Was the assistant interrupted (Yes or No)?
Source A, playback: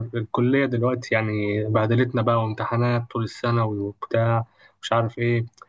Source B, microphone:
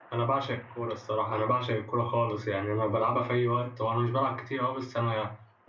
Yes